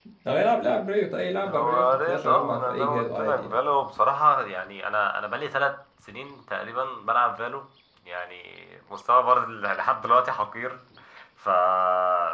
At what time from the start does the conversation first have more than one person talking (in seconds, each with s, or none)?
1.5 s